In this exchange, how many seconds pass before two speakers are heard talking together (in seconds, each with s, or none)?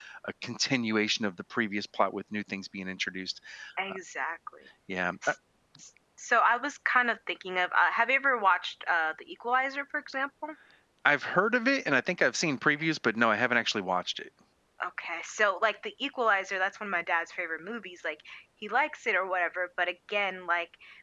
none